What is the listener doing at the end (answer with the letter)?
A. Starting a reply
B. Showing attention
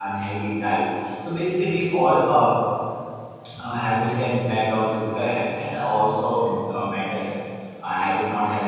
B